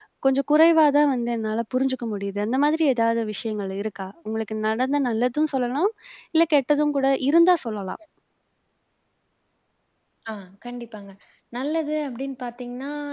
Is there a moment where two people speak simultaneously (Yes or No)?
No